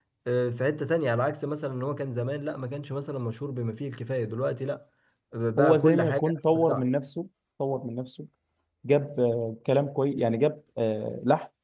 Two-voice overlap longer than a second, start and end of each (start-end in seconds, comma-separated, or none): 5.6-6.9